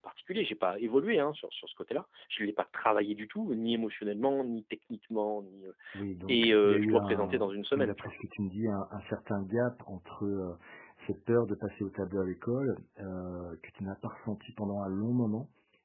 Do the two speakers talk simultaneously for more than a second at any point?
Yes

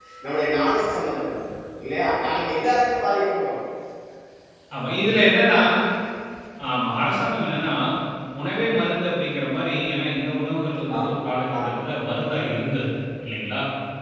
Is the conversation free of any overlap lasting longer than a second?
Yes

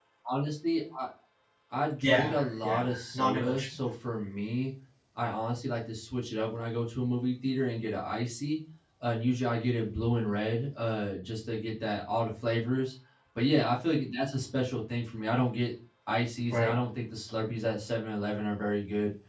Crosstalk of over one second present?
Yes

